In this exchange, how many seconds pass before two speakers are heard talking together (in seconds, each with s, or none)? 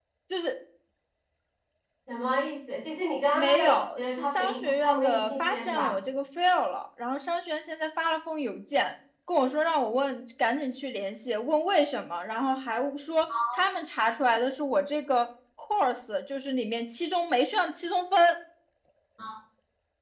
3.3 s